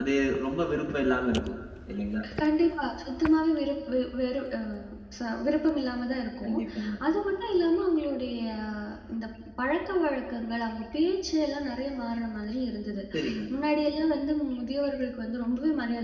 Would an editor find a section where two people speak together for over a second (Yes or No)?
No